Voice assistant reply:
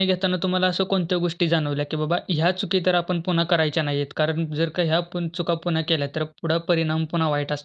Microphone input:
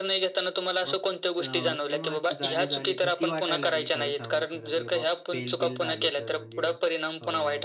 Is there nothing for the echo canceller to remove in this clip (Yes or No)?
No